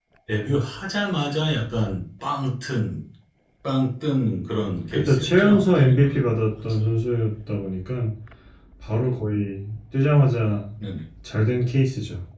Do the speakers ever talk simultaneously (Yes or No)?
Yes